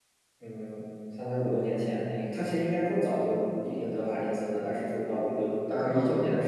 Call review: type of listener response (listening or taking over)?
listening